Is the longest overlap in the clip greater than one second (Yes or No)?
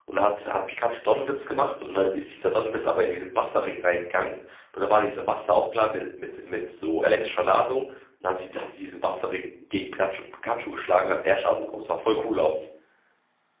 No